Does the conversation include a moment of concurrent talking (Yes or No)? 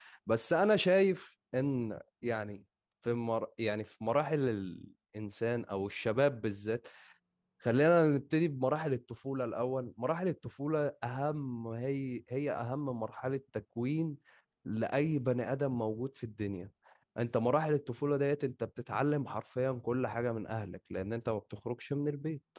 No